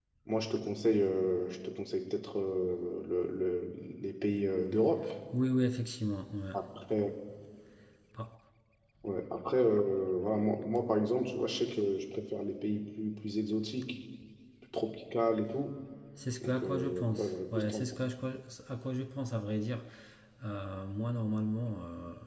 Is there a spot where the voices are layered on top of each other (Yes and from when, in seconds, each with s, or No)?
Yes, from 16.4 s